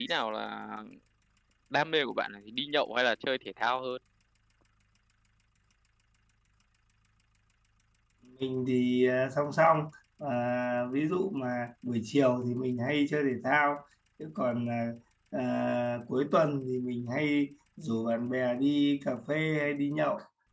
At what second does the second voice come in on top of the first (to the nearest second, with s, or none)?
none